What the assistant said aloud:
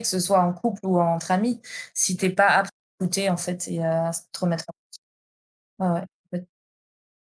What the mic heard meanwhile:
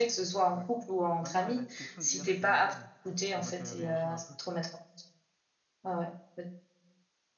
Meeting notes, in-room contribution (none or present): present